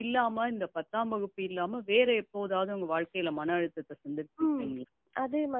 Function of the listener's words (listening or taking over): taking over